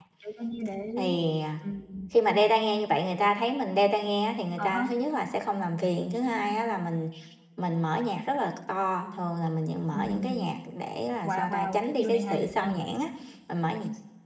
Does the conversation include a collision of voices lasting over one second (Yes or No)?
Yes